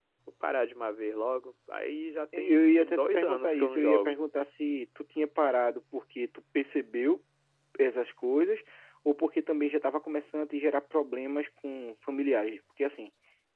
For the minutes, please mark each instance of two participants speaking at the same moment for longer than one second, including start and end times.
2.4-4.2

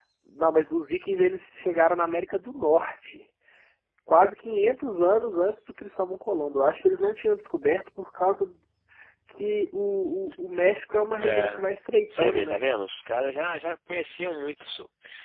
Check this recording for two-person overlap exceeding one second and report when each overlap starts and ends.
none

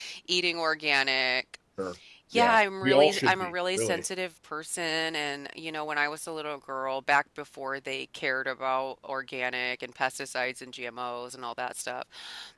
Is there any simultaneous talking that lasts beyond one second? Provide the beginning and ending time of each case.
2.3-4.0

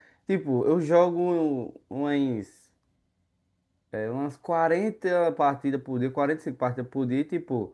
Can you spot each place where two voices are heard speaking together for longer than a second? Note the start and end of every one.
none

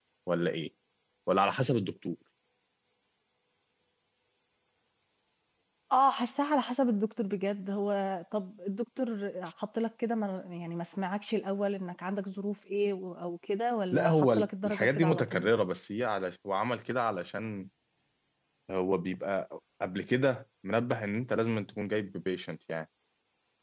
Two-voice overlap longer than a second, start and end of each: 13.9-15.5

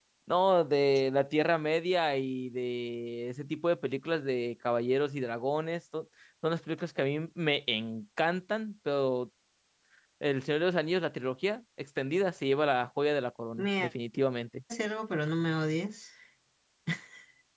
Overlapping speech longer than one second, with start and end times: none

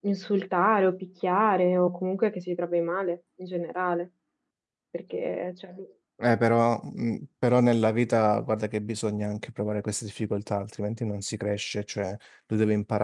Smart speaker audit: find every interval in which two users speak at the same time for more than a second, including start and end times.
none

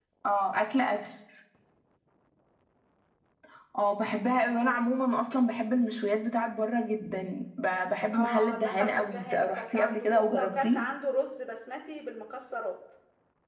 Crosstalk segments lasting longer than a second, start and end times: 8.1-10.8

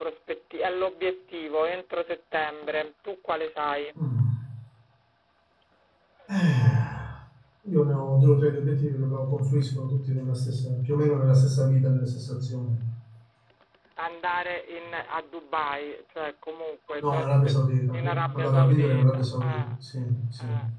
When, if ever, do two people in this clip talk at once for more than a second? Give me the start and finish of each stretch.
17.9-19.7

